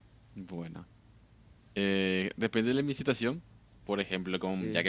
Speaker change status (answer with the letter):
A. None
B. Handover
A